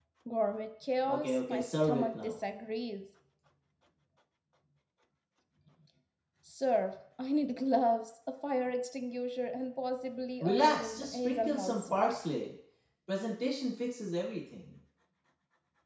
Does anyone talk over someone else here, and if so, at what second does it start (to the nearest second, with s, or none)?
1 s